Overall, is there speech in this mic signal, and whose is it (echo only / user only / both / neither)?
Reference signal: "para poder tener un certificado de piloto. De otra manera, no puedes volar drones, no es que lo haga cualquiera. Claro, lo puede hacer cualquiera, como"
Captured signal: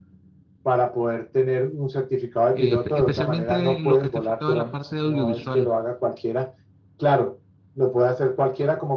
both